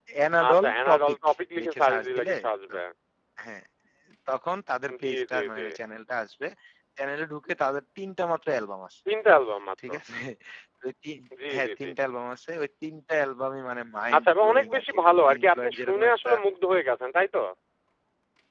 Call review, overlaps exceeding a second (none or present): present